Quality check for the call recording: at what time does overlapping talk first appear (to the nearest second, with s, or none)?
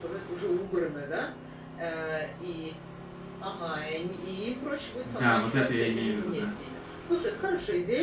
5 s